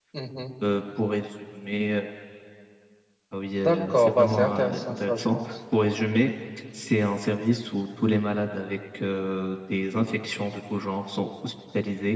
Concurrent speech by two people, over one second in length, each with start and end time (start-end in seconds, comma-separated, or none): 3.6-5.5